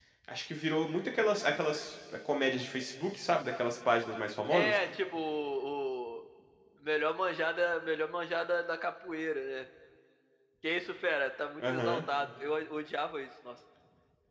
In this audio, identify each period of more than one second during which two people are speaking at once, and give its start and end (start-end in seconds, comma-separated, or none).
none